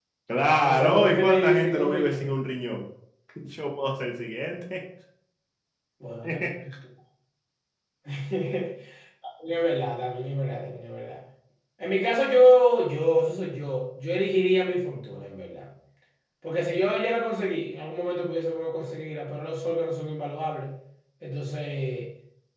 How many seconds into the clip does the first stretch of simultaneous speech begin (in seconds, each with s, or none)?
0.6 s